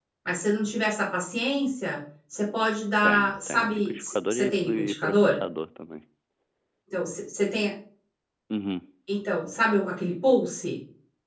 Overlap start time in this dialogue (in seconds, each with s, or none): 3.0 s